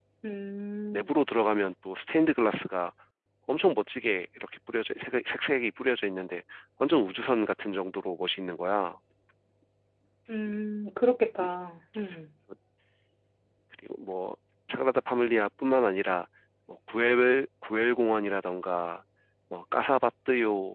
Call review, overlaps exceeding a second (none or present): none